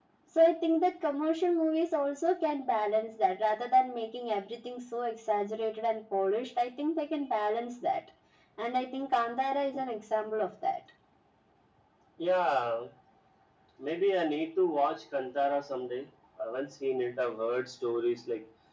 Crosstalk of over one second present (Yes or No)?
No